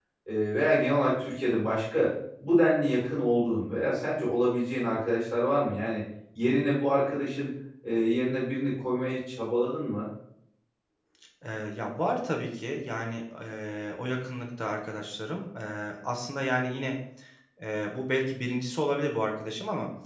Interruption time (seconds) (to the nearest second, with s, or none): none